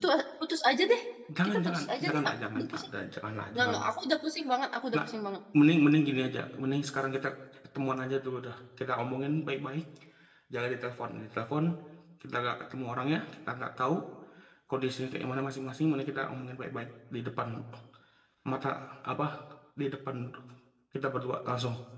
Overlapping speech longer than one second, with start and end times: 1.4-2.9

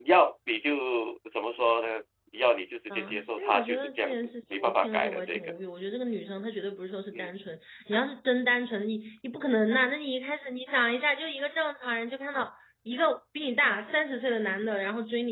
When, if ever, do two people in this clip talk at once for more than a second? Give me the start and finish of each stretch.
2.9-5.6

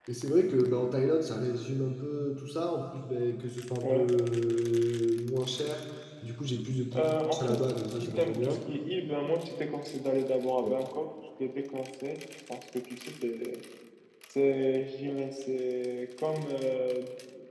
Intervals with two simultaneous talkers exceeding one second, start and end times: 6.9-8.6

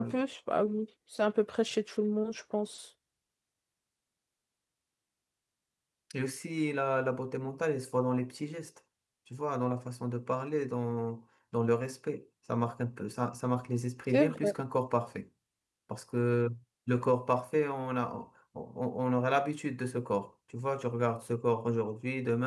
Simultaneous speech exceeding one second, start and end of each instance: none

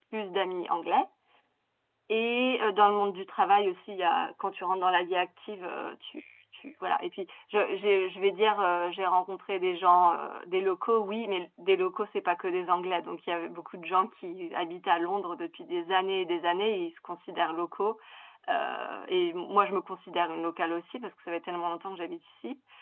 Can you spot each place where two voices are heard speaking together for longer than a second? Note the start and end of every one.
none

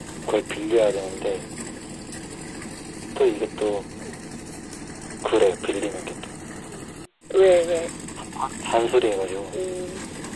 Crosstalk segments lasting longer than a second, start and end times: none

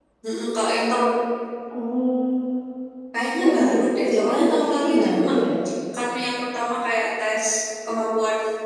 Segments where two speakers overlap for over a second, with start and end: 3.4-5.3

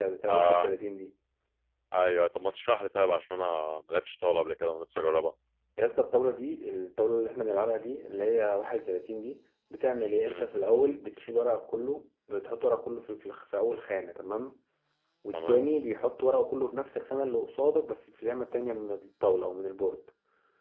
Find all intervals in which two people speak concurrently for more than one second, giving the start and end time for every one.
none

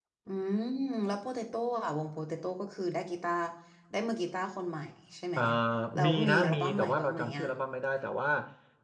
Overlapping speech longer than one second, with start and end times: 6.0-7.5

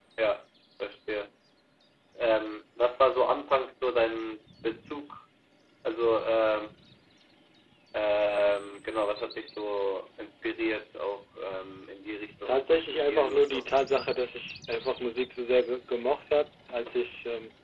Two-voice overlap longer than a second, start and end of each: 12.4-13.7

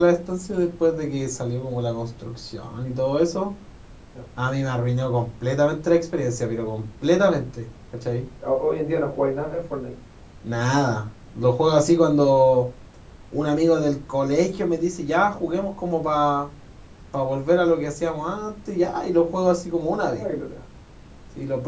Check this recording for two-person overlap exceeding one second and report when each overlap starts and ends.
none

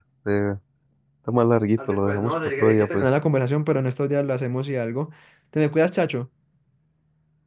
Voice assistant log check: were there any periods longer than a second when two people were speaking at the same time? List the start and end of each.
1.8-3.1

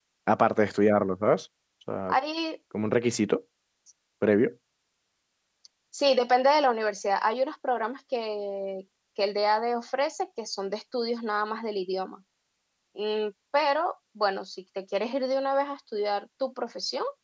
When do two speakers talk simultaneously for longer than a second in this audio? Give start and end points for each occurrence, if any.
none

